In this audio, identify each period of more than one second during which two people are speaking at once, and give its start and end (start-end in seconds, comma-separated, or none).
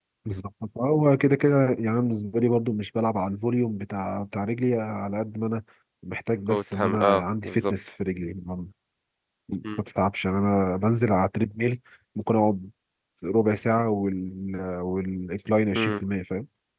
6.5-7.7